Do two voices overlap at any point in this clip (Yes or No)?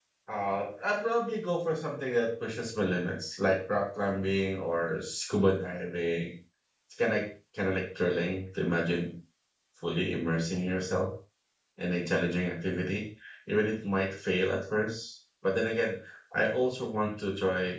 No